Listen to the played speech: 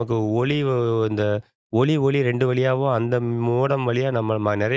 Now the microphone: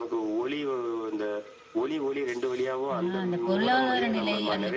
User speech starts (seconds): 3 s

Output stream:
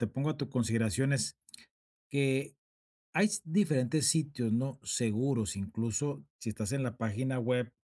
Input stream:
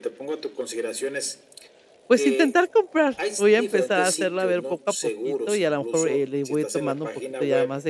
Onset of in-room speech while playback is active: 2 s

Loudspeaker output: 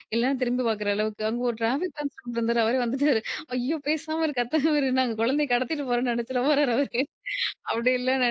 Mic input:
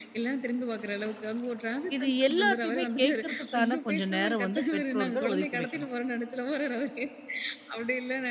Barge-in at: 2 s

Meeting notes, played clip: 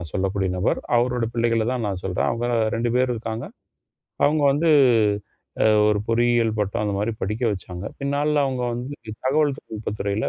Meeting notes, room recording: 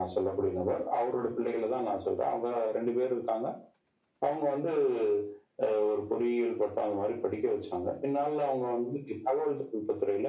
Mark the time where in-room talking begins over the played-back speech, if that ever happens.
none

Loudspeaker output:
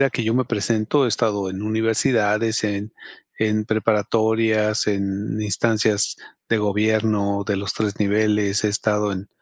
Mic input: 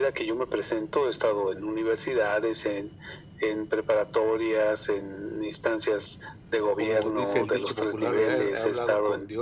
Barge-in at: 7 s

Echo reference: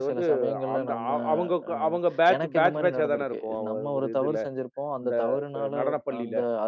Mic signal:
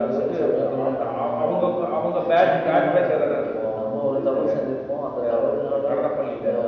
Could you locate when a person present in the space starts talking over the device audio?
none

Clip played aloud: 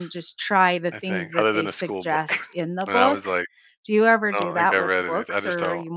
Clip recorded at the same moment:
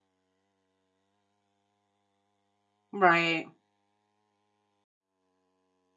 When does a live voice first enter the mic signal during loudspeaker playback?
3 s

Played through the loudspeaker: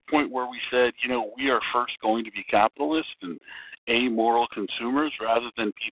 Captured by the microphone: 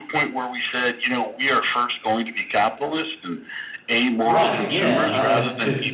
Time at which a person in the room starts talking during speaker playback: 4 s

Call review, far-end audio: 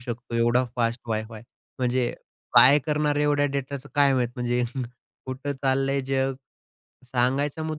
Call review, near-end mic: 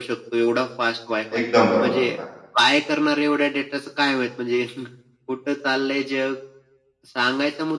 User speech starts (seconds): 1 s

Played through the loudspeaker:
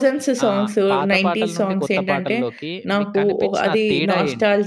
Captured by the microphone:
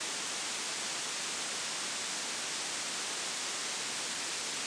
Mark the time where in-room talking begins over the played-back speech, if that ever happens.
none

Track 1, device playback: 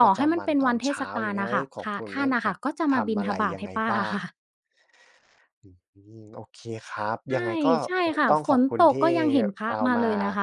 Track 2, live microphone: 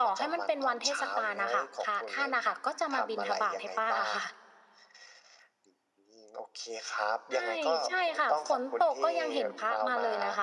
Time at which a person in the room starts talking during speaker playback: none

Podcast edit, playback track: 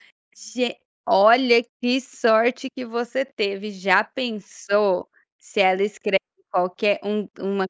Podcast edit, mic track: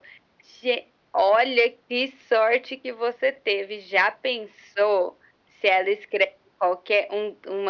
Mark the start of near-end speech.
none

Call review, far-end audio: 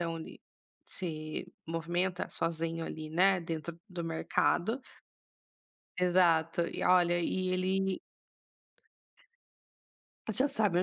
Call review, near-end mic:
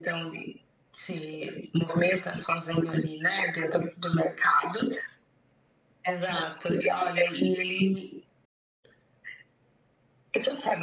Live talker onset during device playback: none

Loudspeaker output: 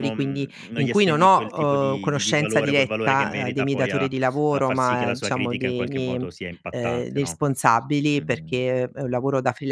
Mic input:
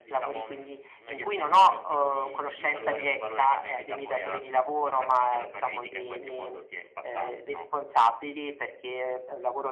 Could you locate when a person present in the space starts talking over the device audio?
none

